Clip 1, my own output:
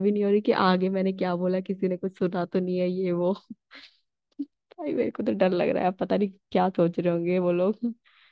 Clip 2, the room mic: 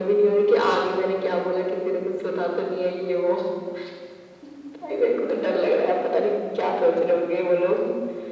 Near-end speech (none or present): none